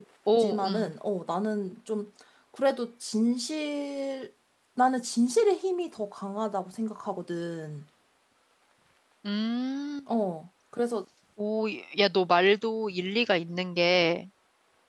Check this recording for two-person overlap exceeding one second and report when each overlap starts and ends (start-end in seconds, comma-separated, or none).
none